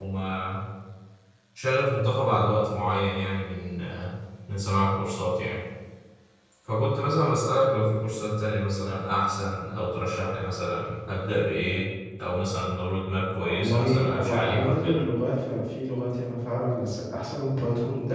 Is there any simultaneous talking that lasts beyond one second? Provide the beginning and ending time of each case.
13.4-15.0

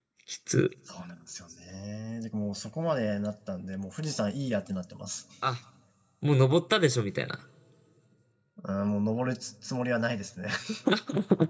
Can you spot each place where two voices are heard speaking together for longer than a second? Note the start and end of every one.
none

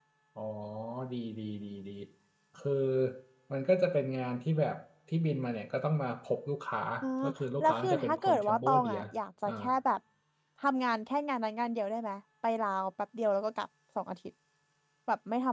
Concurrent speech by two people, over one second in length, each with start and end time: 7.6-9.0

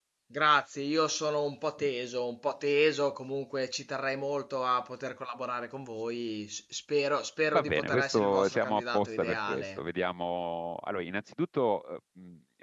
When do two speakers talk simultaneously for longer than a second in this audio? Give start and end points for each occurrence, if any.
7.5-9.8

